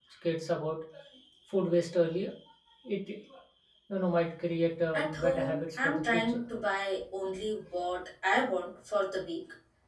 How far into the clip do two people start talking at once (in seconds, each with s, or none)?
4.9 s